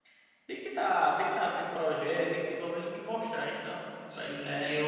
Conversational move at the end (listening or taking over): taking over